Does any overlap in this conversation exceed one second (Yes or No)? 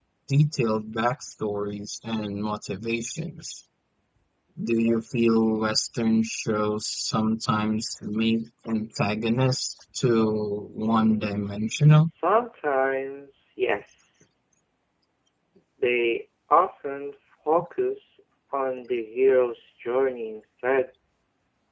Yes